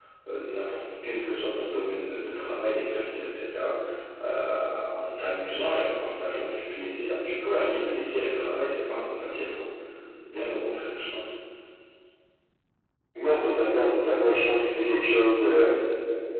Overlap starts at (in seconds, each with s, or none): none